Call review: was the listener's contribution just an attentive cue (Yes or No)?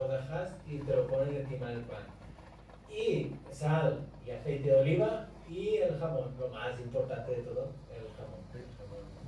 No